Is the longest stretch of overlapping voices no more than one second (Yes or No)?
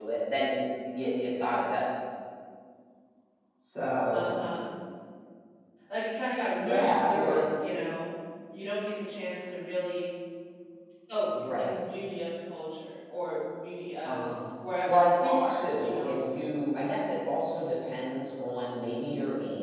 No